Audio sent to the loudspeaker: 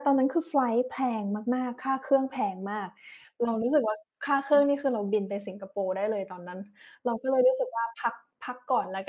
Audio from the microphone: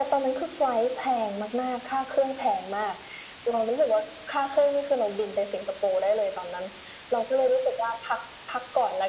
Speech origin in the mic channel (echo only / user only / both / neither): echo only